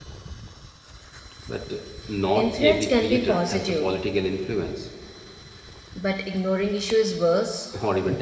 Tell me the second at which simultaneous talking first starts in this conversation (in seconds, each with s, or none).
2.4 s